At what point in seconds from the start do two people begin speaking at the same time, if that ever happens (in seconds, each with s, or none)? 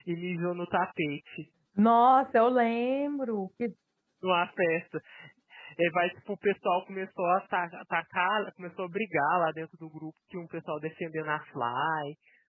none